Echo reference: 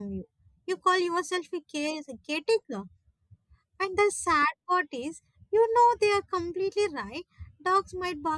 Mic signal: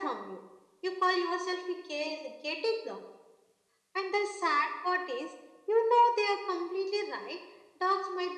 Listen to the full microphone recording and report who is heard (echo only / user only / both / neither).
echo only